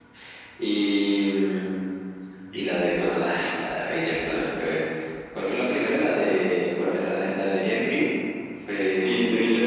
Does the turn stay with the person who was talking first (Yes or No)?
No